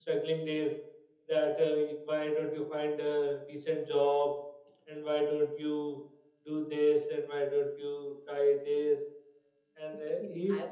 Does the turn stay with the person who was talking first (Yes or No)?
No